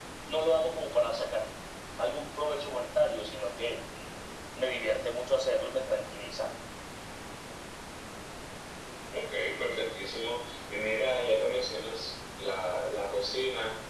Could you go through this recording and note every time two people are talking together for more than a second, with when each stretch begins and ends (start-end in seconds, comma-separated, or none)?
none